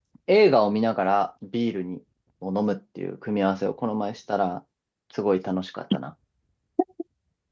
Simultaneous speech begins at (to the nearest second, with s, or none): none